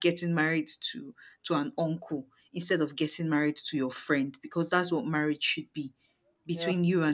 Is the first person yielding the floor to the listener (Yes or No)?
No